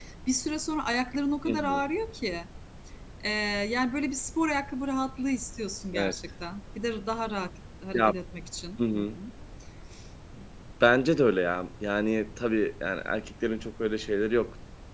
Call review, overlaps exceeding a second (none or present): none